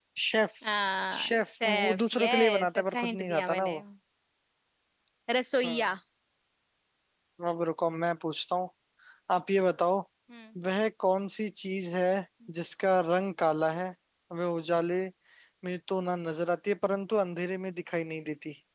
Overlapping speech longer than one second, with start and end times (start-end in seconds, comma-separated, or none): 1.2-3.8